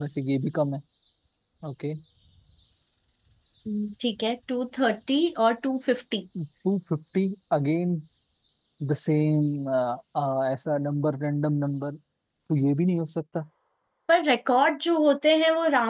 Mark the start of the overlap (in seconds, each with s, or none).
none